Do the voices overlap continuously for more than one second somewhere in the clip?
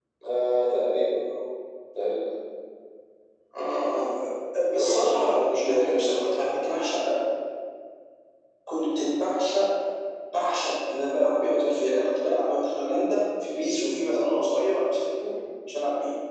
Yes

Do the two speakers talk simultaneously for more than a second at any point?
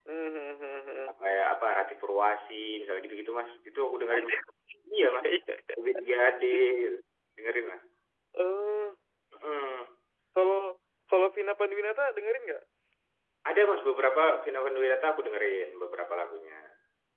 No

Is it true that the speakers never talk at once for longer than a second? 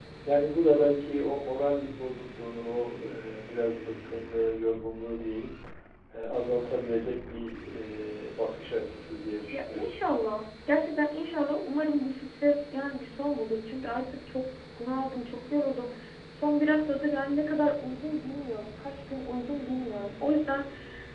Yes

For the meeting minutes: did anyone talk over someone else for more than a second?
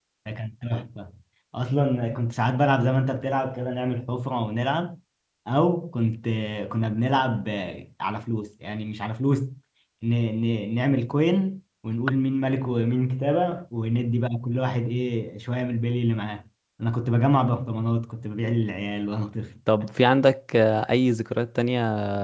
No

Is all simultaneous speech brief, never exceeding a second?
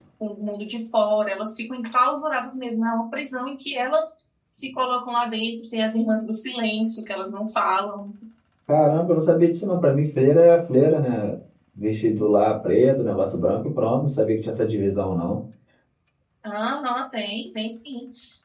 Yes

